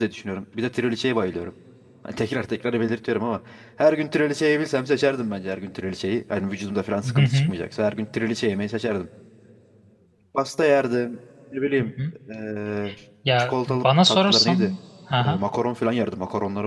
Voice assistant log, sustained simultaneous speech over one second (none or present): present